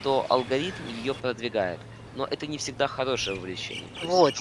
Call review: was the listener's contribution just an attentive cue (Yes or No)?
No